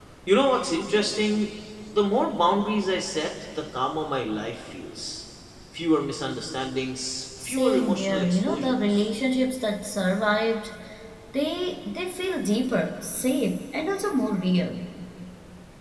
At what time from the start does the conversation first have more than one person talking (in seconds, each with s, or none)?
7.4 s